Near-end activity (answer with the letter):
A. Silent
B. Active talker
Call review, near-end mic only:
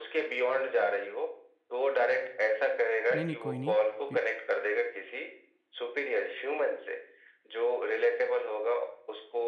B